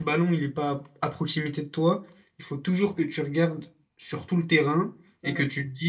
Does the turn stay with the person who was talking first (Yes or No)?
Yes